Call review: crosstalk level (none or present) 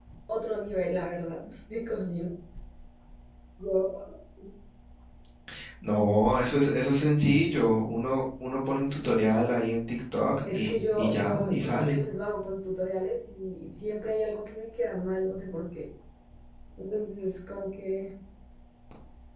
present